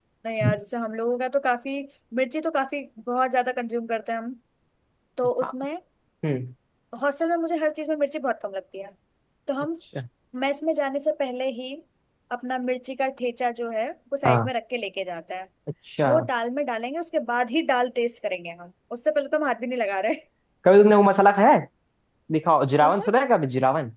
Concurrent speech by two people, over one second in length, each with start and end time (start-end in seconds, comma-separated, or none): none